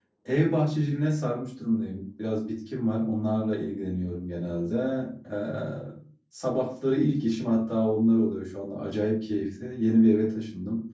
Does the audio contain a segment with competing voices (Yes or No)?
No